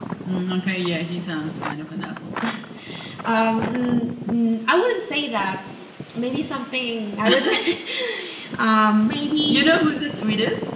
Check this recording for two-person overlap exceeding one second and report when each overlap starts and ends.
none

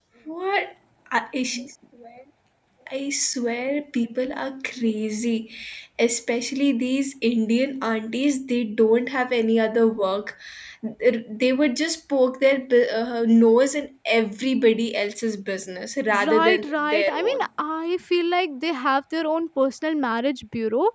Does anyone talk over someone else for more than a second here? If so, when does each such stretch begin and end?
16.3-17.5

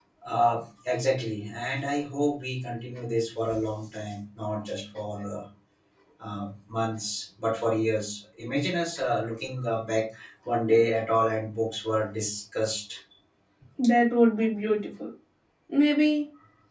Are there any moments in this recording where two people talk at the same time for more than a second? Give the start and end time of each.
none

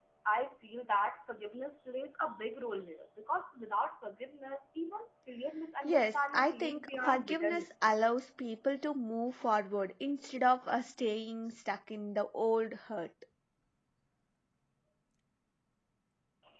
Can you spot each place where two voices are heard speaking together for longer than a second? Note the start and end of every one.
5.8-7.7

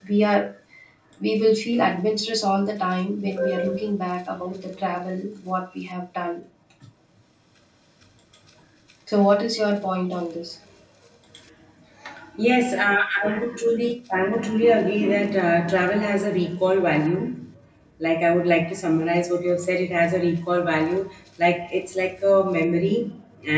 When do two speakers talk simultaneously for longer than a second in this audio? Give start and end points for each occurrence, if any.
none

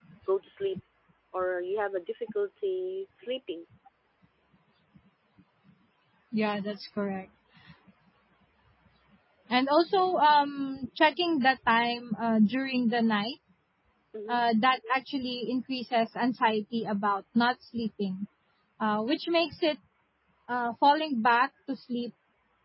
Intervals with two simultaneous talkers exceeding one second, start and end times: none

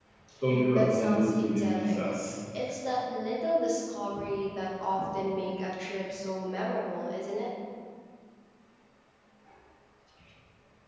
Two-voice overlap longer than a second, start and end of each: 0.7-2.2

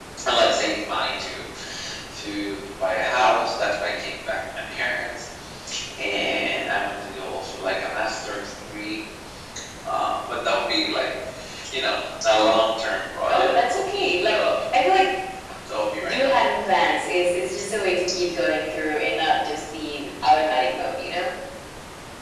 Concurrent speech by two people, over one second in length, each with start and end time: 13.3-14.5

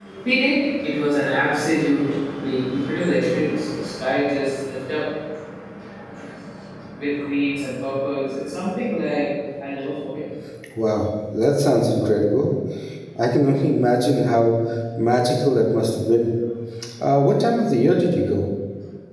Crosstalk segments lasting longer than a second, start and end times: none

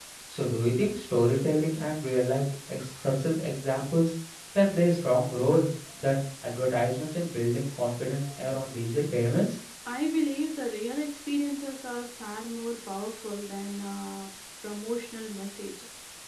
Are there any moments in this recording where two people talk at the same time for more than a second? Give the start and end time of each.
none

